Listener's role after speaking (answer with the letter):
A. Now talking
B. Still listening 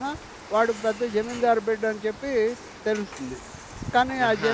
B